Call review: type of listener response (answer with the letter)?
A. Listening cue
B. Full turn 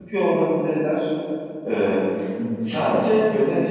A